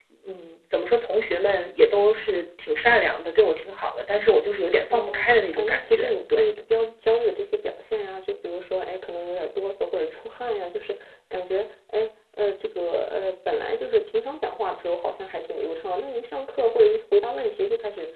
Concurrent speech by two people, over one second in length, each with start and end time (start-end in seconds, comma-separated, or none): 4.9-6.4